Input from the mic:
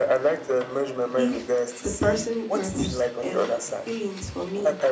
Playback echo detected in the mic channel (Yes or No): Yes